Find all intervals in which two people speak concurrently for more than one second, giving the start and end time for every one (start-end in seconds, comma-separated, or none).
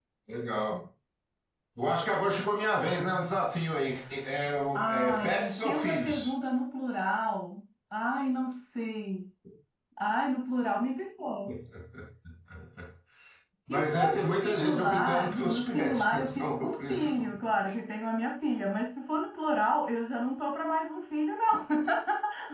4.8-6.3, 13.7-17.3